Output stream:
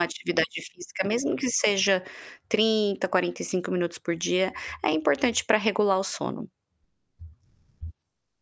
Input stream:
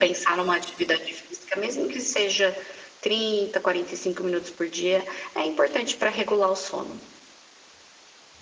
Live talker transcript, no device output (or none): none